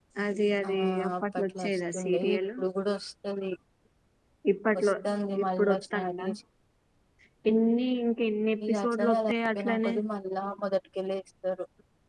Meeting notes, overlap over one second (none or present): present